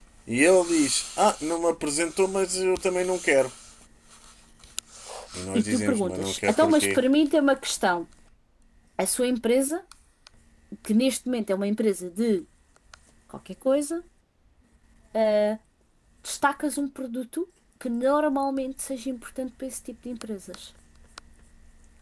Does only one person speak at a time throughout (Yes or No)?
No